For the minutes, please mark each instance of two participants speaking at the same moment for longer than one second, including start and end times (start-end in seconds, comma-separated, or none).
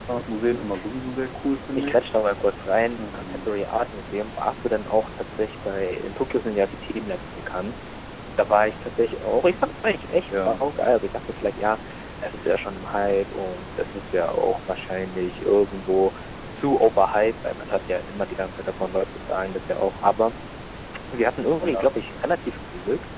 none